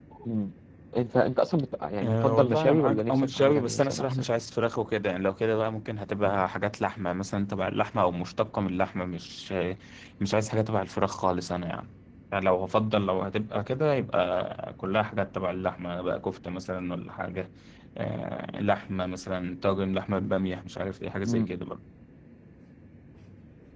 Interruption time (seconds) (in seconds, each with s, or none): 2.0 s